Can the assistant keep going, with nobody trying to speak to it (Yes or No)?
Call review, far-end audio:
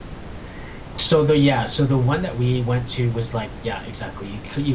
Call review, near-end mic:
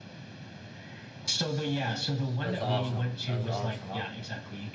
No